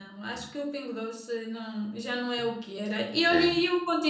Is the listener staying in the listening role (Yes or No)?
Yes